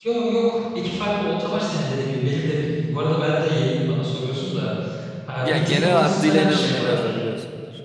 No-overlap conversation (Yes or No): No